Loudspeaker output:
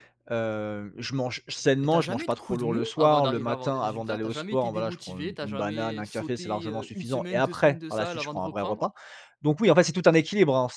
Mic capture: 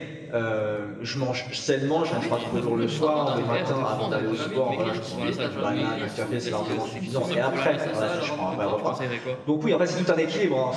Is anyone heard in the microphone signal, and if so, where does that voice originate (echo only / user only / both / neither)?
both